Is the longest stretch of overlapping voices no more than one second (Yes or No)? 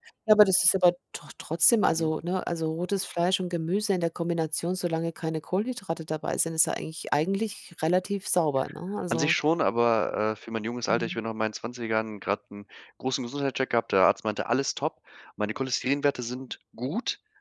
Yes